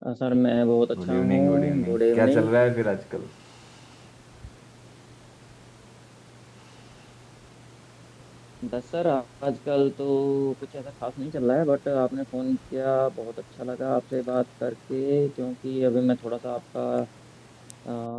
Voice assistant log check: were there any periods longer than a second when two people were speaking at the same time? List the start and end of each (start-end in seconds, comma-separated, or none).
1.1-2.5